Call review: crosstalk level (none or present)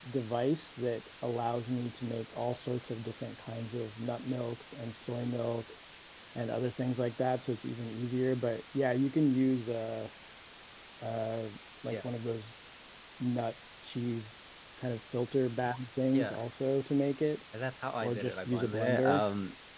present